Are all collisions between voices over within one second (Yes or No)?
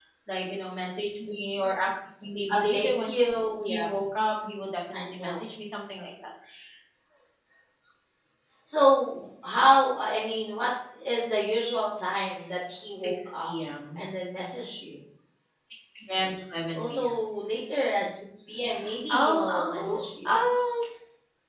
No